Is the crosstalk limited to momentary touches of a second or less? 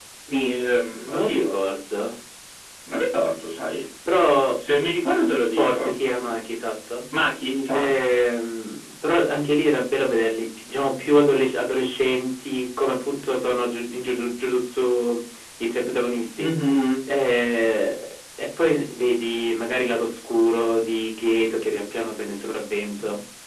Yes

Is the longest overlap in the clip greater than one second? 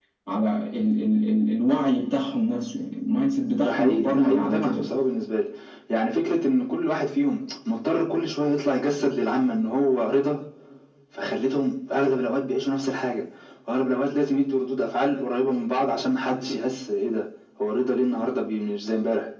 Yes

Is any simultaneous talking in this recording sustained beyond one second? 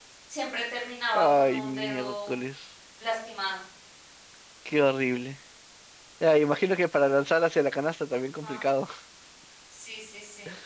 Yes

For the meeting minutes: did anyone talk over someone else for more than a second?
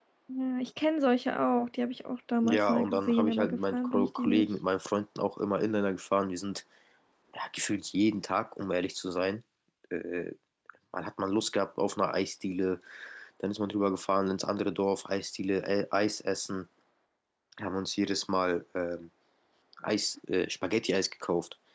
Yes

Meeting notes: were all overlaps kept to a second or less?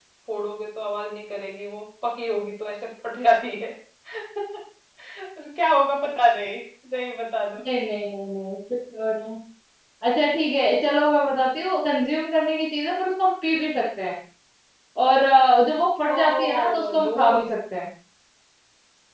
No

